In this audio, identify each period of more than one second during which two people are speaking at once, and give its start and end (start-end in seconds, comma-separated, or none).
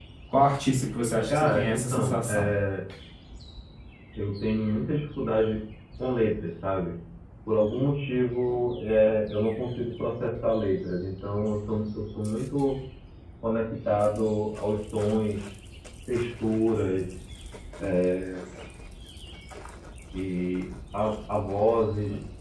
1.3-2.5